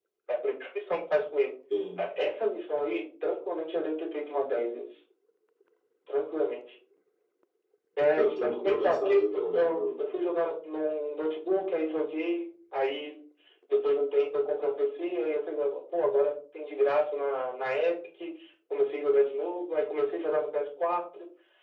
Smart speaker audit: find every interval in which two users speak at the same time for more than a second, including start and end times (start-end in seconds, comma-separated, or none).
8.2-10.1